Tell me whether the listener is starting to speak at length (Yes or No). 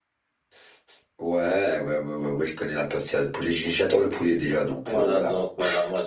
Yes